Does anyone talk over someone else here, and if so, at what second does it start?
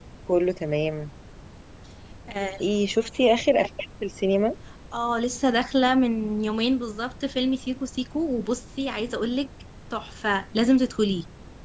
none

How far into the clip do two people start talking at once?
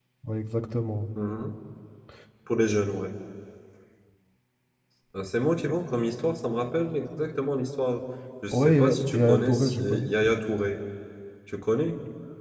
8.5 s

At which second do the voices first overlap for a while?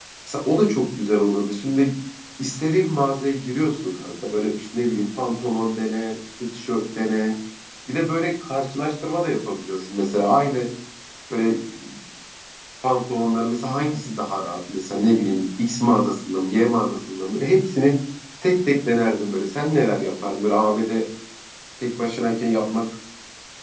none

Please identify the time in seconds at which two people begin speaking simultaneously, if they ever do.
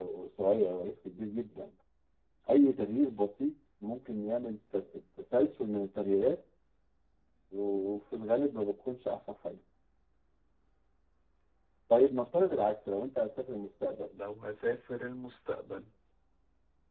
none

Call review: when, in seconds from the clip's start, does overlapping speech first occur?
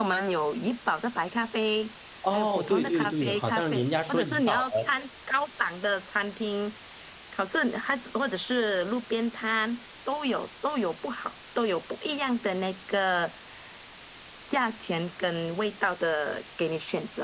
2.2 s

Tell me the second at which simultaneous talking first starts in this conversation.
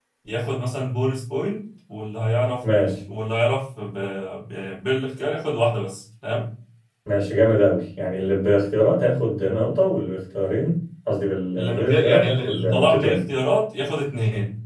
11.6 s

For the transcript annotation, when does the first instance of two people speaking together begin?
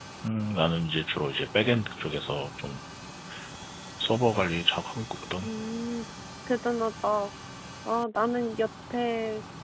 none

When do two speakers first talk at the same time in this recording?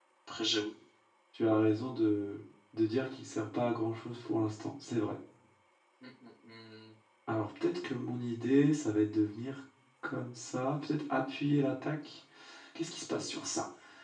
none

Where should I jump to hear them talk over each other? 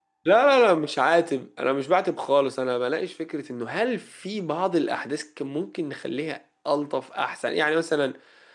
none

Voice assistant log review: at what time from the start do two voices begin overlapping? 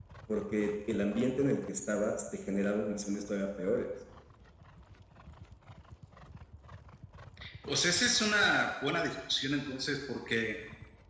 none

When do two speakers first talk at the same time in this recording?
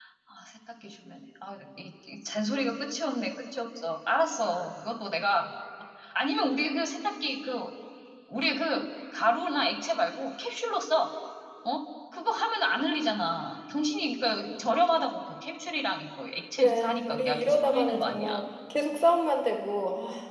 16.6 s

